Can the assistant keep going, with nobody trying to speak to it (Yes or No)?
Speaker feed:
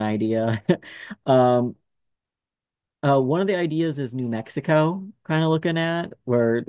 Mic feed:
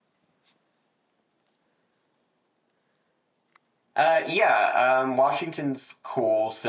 No